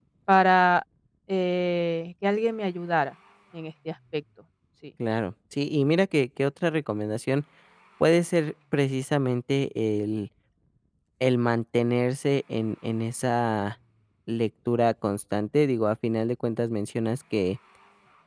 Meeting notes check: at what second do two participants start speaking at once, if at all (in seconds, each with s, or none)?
none